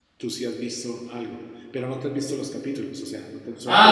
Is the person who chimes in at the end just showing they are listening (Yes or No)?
No